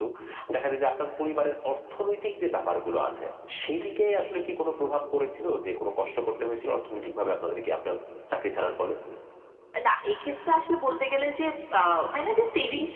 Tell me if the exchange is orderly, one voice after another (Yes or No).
Yes